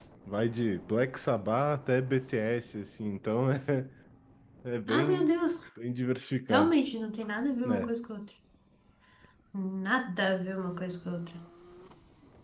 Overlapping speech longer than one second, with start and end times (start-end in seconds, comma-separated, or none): none